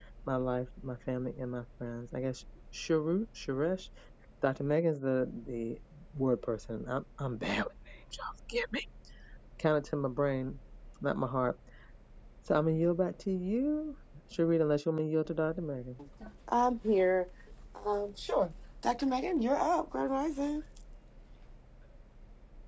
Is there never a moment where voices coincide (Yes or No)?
Yes